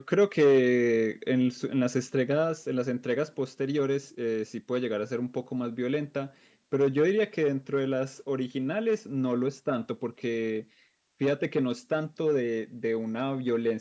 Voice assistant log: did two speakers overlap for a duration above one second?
No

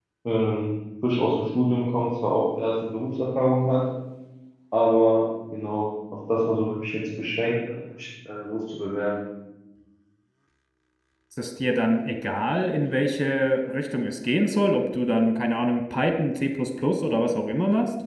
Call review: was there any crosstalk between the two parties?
No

